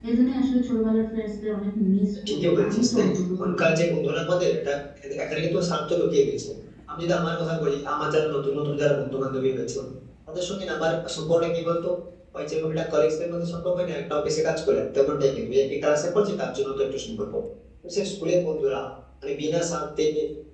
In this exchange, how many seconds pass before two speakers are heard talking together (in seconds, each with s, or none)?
2.3 s